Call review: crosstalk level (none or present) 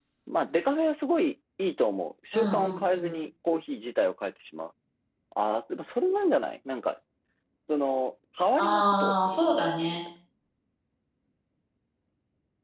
present